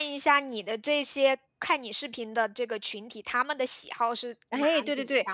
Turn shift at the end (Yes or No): Yes